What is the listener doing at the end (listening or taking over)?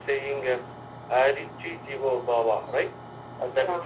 listening